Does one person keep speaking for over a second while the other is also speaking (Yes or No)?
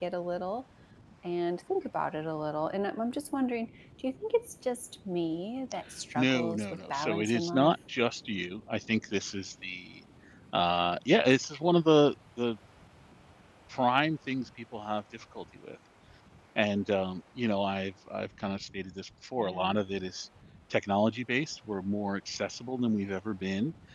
Yes